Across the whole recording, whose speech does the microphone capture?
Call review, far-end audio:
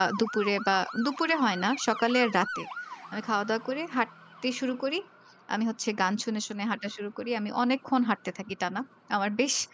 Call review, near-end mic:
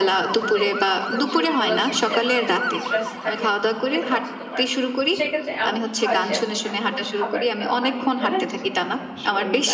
both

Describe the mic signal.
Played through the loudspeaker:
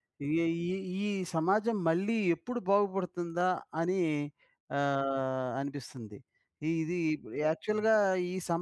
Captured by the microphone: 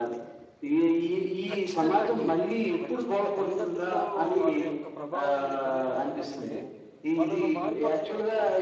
both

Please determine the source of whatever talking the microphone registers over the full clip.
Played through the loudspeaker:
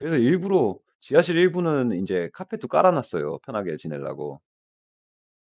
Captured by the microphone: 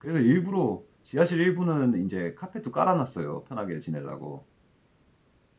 echo only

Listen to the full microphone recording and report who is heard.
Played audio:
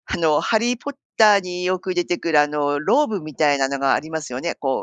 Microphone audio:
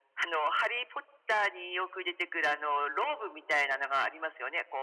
echo only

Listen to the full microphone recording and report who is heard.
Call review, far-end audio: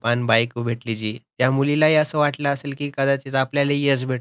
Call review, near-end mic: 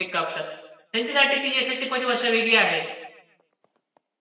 user only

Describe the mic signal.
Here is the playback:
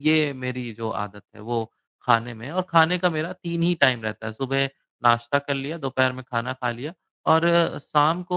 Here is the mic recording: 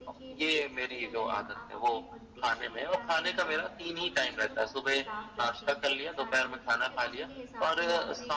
both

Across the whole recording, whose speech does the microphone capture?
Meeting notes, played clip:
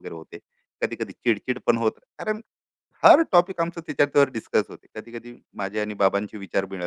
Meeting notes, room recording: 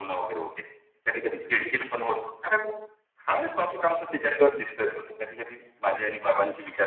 echo only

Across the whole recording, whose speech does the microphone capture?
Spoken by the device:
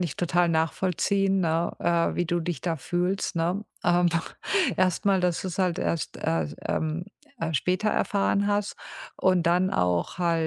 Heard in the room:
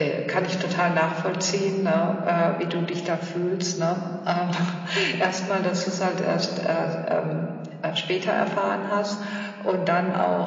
echo only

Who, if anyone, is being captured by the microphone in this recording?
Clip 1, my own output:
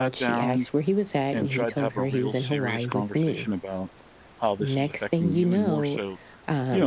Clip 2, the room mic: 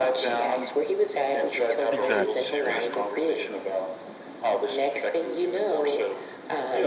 both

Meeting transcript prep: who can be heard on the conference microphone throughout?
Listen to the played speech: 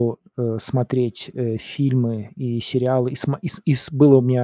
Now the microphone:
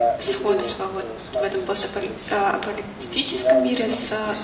both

